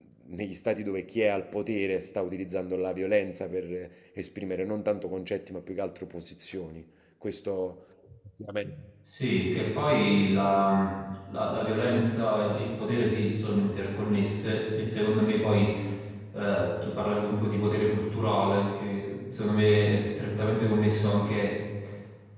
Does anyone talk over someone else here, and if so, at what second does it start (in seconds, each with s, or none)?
none